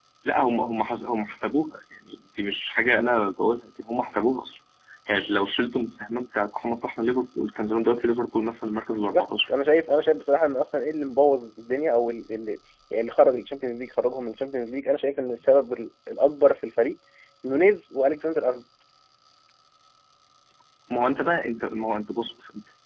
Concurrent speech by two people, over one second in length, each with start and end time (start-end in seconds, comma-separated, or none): none